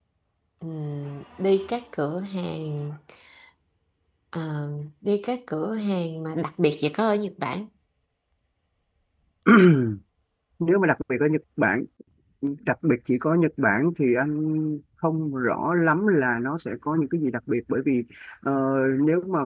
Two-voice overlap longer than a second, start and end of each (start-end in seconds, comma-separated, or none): none